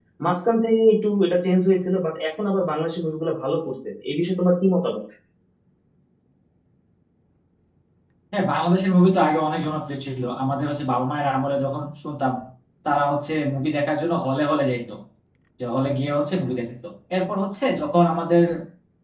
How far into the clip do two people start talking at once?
none

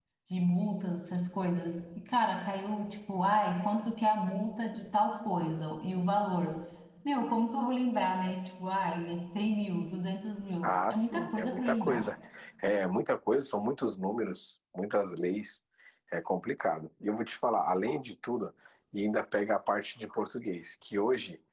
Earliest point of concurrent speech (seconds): 11 s

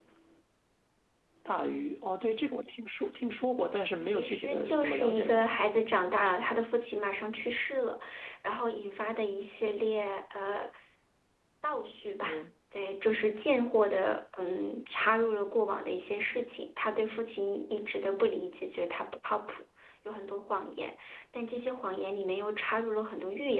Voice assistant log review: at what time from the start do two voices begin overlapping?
4 s

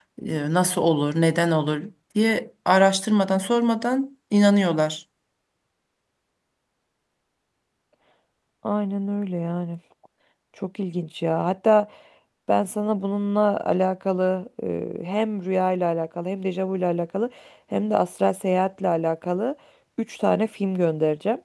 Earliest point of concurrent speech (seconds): none

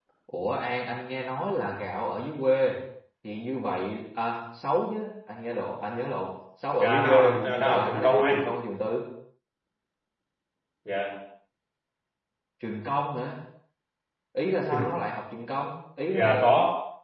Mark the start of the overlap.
7 s

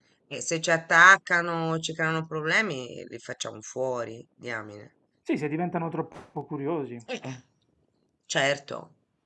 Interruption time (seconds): none

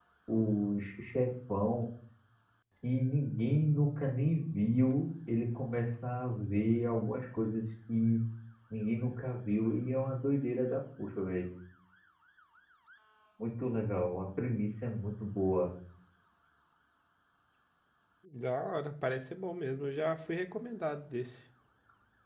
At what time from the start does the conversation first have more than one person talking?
none

